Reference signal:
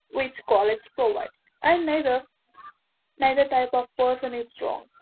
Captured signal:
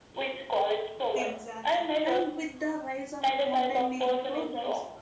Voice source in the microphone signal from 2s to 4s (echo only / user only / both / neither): both